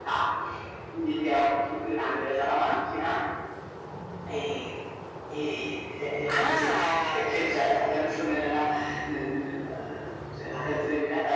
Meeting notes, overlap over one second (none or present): present